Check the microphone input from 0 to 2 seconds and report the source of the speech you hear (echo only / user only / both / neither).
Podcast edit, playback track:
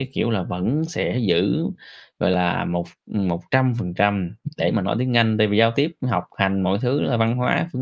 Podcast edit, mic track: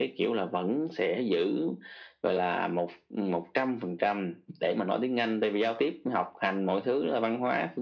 echo only